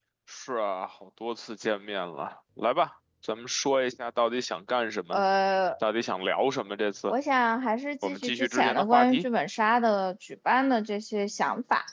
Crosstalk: present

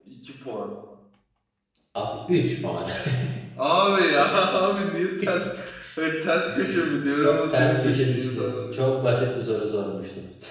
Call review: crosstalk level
present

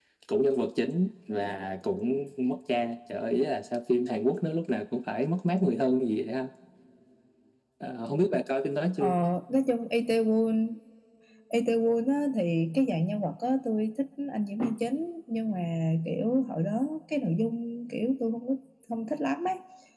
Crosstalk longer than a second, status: none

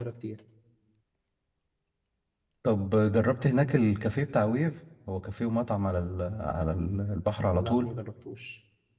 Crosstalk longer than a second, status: none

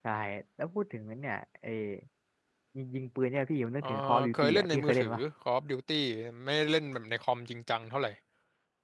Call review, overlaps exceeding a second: present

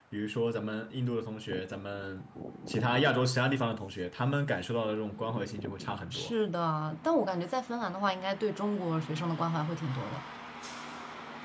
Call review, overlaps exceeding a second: none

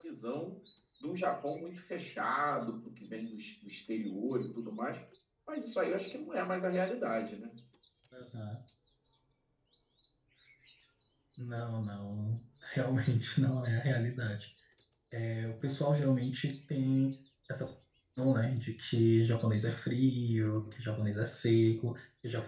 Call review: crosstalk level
none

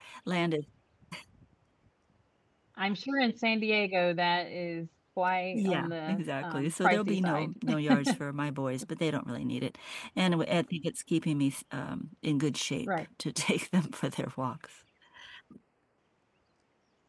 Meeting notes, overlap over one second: present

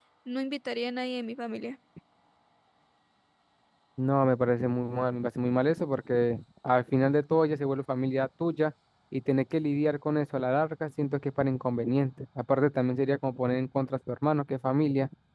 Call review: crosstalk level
none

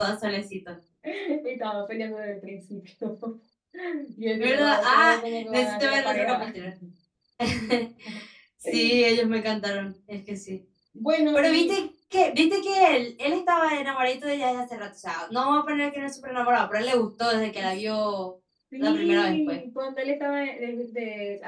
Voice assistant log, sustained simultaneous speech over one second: present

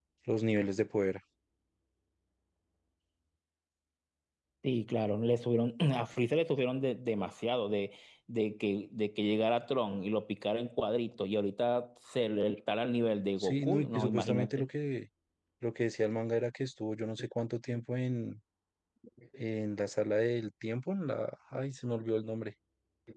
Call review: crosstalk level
present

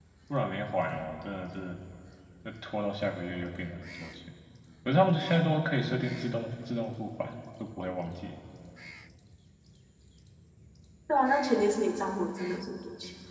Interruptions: none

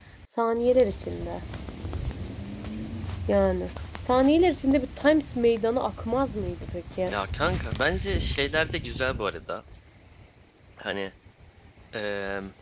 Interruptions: none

